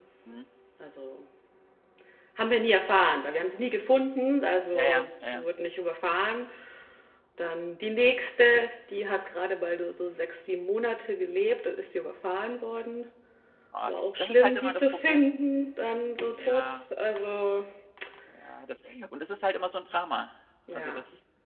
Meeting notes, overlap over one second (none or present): present